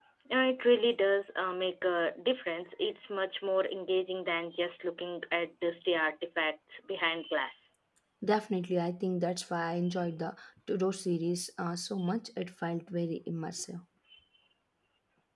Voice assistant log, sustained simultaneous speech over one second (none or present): none